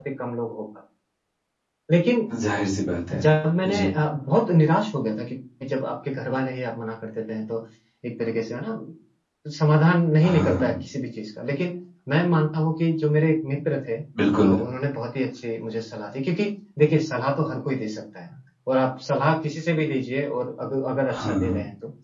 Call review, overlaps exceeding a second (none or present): none